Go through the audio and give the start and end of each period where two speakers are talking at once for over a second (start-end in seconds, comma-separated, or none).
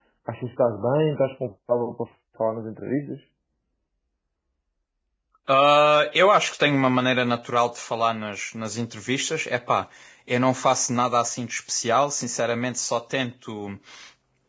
none